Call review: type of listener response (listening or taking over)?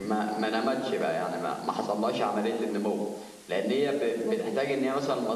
listening